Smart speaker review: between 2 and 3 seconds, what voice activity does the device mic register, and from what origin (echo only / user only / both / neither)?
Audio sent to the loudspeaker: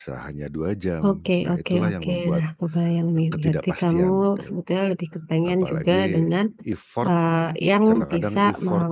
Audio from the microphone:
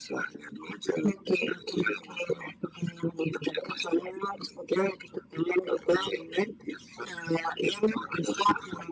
echo only